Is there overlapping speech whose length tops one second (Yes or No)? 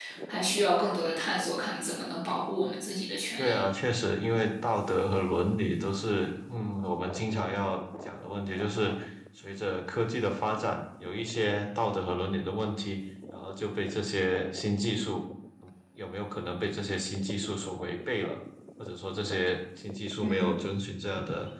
No